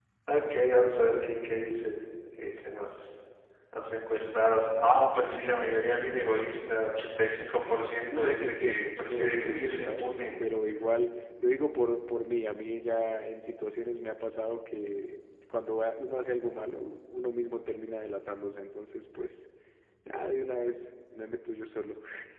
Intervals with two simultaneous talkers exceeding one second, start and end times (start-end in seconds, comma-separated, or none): 8.1-10.2